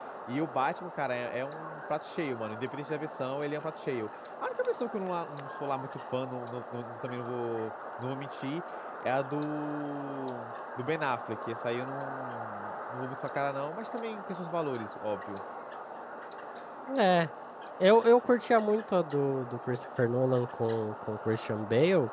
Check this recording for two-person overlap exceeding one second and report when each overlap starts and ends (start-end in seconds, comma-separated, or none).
none